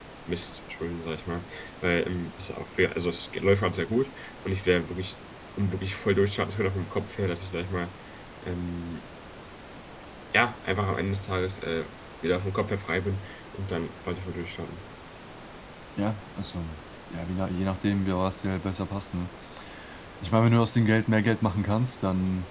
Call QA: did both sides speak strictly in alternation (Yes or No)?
Yes